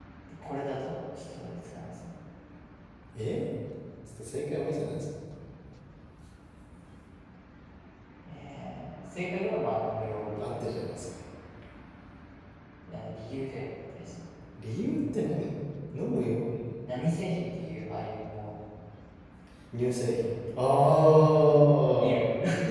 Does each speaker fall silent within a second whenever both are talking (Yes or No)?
Yes